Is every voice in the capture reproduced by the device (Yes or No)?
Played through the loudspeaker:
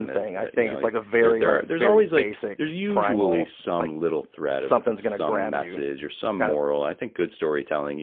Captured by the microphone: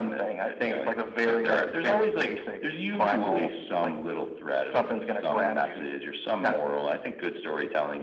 Yes